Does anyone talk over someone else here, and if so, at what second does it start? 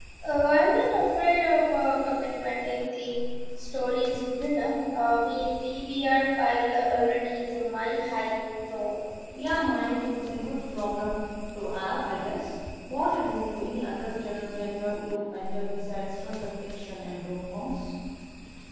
none

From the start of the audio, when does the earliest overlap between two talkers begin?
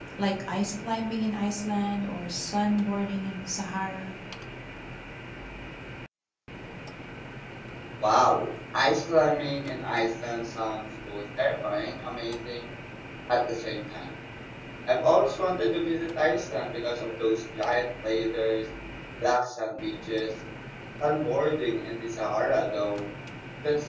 none

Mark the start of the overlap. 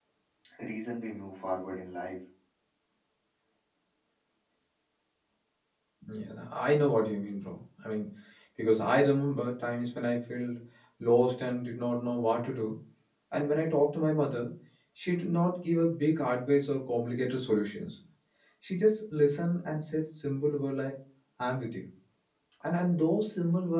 none

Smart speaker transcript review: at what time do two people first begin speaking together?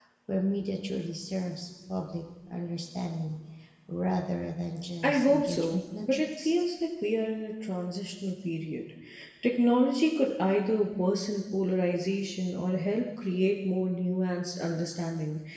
5.0 s

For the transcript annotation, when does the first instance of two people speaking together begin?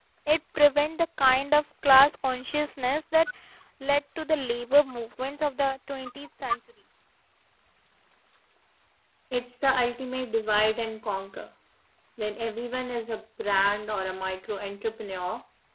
none

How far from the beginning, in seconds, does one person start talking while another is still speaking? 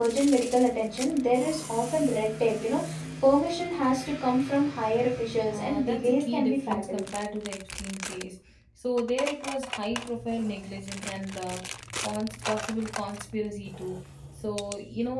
5.5 s

